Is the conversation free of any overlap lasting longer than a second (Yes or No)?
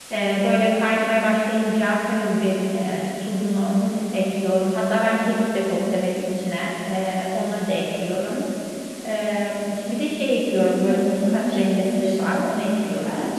No